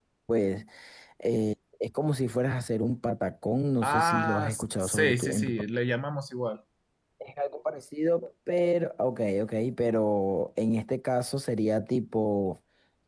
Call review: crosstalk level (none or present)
present